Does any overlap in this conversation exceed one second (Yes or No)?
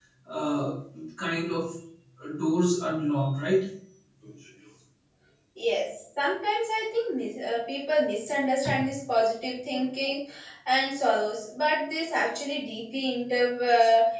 No